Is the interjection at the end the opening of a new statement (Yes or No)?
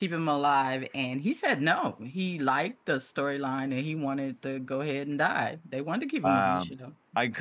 Yes